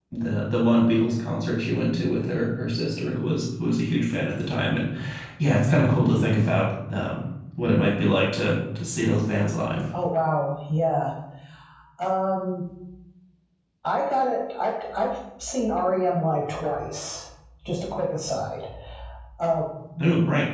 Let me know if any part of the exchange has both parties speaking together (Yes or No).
No